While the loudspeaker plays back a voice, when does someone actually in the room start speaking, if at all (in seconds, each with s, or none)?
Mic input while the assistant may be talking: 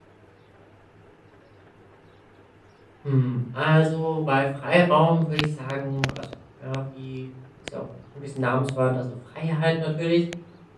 3.0 s